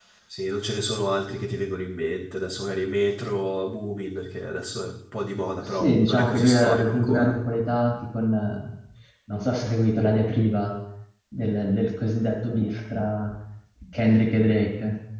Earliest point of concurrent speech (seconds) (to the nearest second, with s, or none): 6 s